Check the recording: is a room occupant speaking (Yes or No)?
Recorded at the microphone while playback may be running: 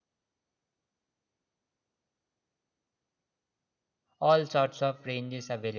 Yes